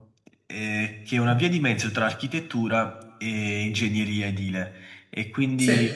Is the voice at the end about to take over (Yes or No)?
No